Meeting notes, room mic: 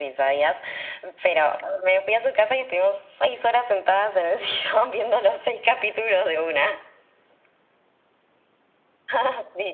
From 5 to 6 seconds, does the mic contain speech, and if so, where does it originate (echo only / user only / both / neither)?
echo only